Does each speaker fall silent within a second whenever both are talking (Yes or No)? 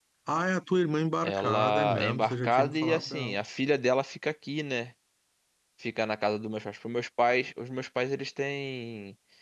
No